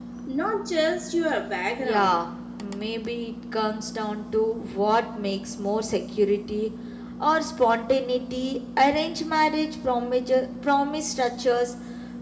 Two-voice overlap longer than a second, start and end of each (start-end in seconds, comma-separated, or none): none